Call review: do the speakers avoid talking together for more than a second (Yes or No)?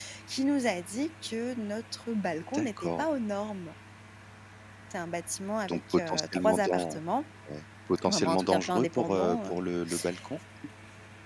No